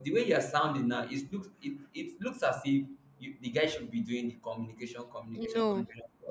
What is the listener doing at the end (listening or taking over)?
taking over